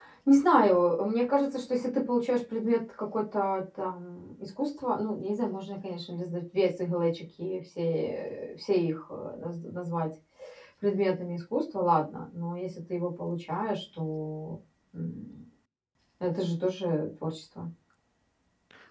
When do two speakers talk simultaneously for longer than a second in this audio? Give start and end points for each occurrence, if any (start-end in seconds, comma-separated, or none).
none